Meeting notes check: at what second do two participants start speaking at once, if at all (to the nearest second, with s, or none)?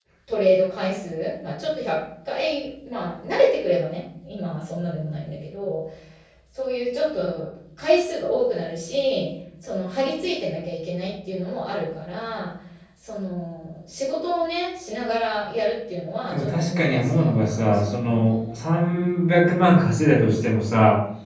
16 s